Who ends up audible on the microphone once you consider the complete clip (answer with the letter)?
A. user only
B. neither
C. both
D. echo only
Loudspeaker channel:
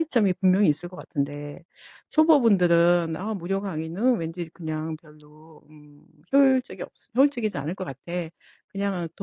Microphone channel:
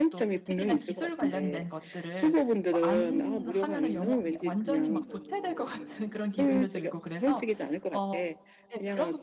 C